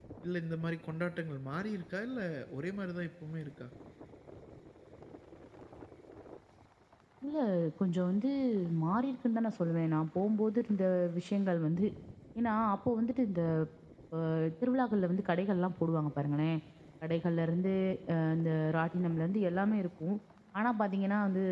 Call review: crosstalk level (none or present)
none